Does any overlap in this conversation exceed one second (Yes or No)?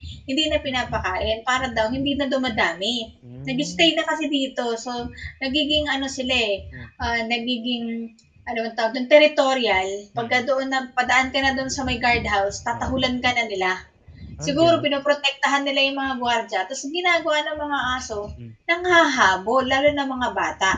No